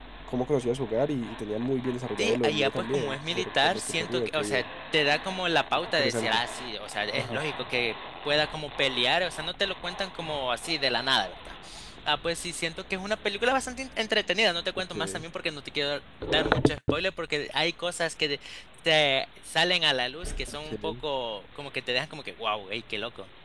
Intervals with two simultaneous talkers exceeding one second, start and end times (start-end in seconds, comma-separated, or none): 2.2-4.6